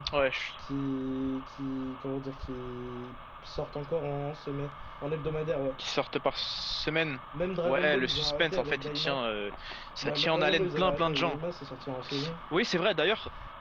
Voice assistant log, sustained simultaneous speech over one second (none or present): present